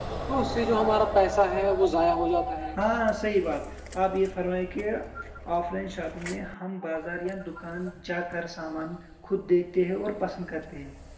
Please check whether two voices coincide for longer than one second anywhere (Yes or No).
No